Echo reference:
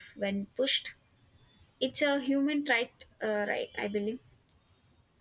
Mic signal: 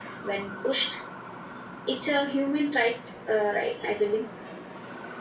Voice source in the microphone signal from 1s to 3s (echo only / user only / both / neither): echo only